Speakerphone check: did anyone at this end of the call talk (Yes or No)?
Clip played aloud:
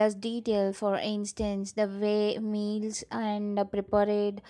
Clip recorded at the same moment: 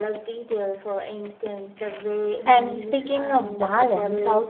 Yes